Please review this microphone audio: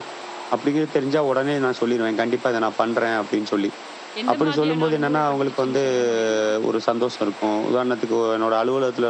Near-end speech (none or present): present